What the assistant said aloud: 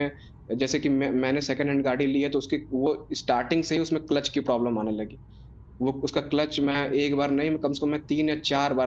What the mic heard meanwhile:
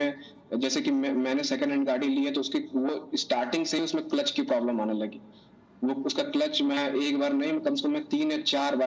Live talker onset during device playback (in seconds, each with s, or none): none